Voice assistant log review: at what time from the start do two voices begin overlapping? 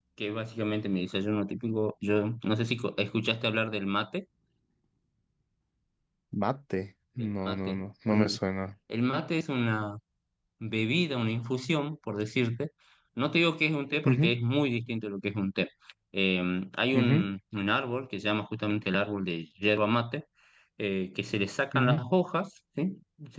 7.2 s

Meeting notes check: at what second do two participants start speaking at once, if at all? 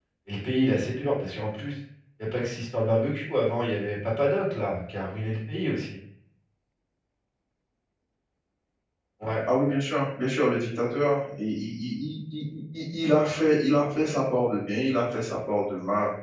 none

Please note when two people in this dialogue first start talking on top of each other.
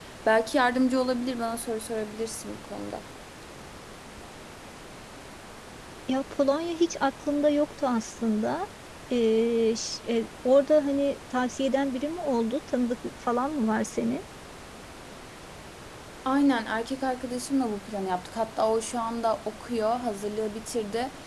none

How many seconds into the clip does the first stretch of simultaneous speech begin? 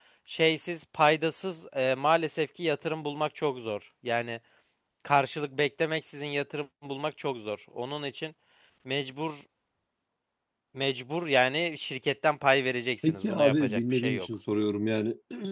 13.0 s

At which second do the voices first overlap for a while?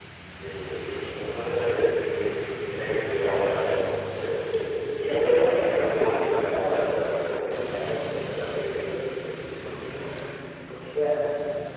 5.2 s

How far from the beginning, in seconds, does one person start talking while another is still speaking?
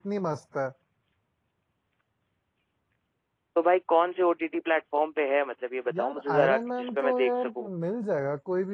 5.9 s

